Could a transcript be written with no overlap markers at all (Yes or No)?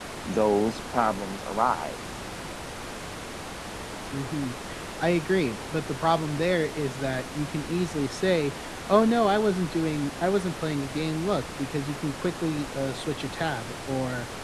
Yes